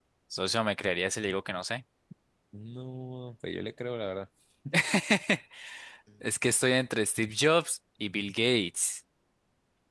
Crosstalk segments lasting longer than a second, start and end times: none

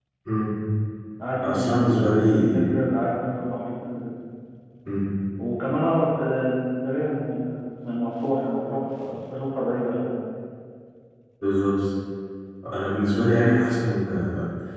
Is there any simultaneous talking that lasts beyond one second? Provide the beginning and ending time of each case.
1.5-2.8

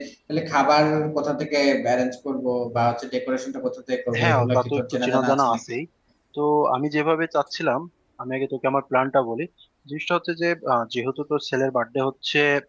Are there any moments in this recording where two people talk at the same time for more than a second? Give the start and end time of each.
4.2-5.6

